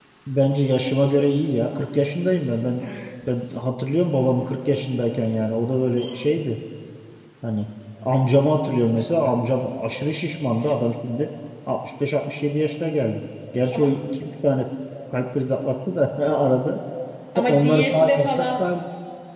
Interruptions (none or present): present